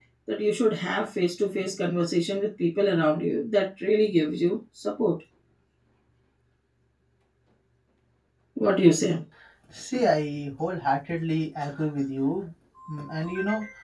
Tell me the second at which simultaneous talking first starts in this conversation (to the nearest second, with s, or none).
none